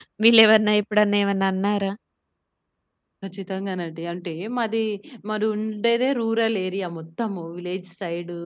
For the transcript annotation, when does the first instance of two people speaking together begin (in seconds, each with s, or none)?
none